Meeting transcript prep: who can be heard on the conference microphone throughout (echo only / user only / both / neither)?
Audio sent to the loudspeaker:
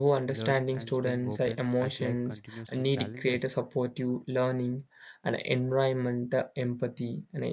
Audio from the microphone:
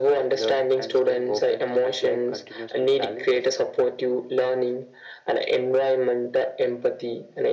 echo only